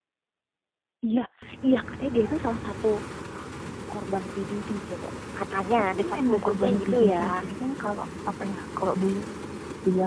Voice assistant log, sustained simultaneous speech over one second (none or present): present